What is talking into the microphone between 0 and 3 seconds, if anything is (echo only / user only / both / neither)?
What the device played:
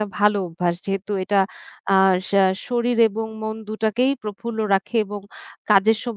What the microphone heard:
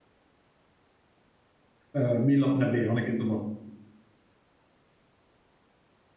user only